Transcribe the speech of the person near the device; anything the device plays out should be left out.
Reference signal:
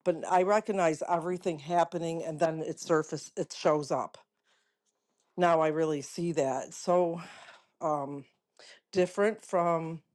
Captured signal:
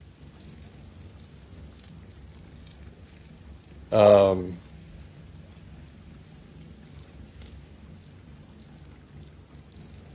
um,

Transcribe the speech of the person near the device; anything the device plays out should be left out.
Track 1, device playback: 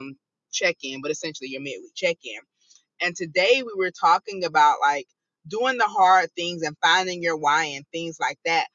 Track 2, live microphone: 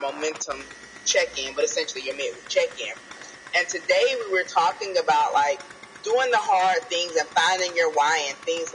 none

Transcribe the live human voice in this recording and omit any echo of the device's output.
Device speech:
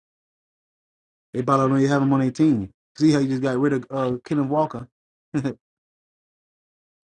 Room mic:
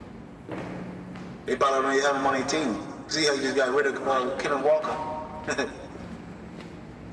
none

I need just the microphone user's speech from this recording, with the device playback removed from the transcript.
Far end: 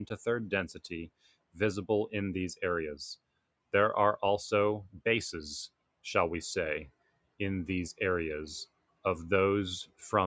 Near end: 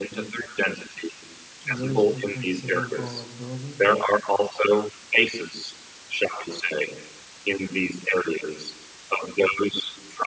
A waste of considerable abilities.

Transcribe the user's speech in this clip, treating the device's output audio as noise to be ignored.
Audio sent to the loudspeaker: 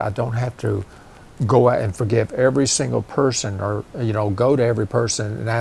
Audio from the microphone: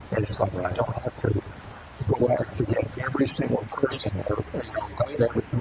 right.

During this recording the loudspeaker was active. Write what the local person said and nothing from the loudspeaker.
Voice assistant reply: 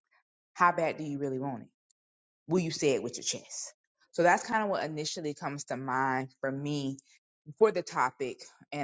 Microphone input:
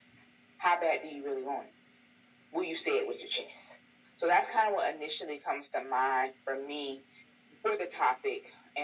none

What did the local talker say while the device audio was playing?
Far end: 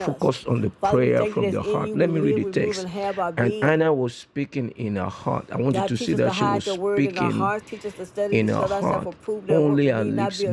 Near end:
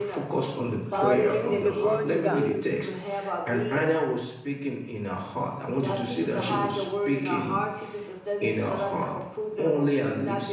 Hallelujah. Glory to God.

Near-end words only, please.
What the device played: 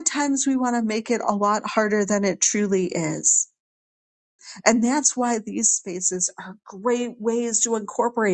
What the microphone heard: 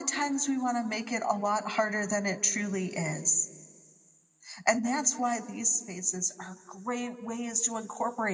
none

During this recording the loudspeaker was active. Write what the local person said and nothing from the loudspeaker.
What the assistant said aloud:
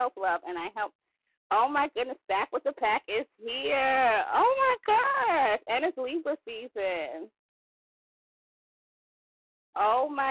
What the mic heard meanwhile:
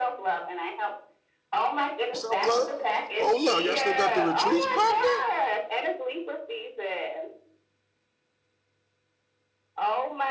Self Love. Hold up, y'all still got the retreats popping?

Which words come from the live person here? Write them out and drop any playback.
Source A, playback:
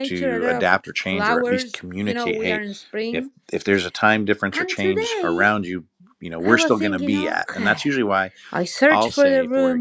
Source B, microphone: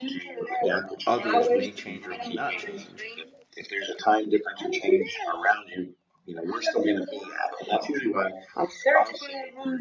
others may change or may not change.

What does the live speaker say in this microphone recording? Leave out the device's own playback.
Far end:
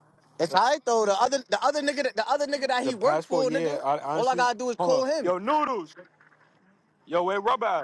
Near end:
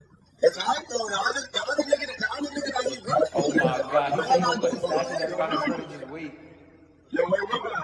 Oh my god. He said he gonna put a statue that's by his foot and just wait.

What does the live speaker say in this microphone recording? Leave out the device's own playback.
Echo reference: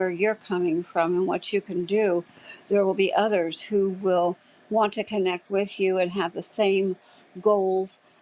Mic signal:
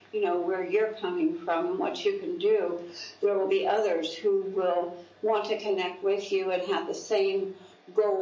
none

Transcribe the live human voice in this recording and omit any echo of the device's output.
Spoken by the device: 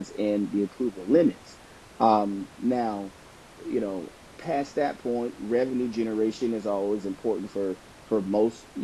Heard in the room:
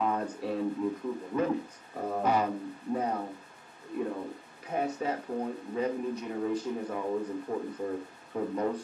uh,

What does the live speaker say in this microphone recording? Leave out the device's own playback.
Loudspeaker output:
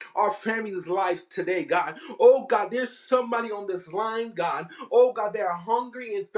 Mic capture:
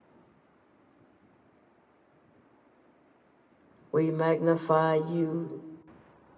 we magnify you.

